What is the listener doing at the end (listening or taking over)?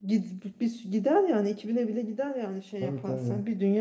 listening